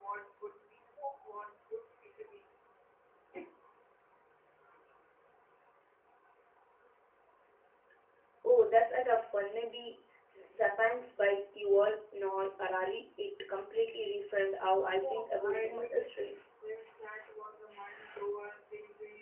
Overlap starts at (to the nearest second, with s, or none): 15 s